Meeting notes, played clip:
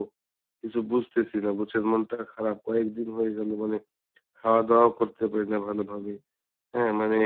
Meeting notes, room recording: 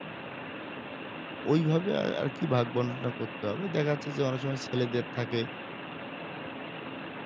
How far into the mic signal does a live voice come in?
1.5 s

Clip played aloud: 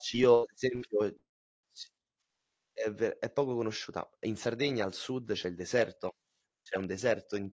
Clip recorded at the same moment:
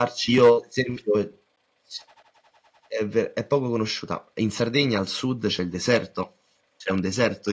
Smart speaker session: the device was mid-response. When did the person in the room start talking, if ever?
none

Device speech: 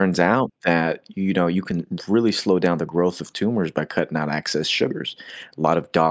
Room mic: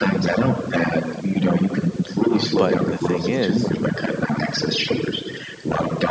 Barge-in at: 2.3 s

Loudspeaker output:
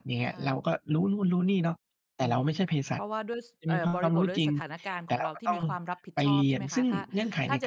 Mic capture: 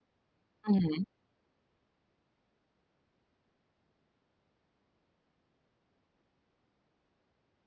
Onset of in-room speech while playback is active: 0.6 s

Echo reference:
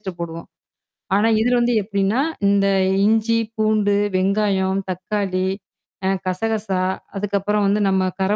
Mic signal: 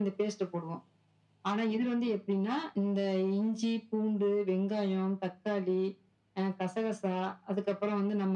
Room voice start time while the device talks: none

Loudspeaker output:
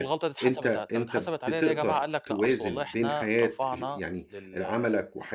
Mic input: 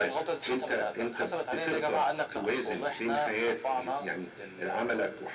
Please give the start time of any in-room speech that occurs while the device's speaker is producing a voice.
none

